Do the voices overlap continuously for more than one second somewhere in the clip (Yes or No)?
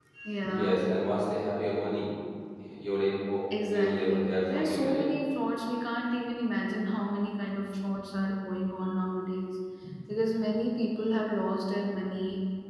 Yes